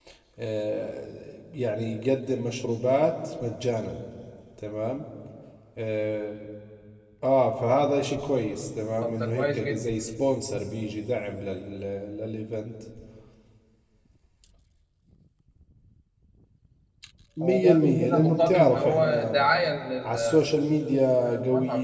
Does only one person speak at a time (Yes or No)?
No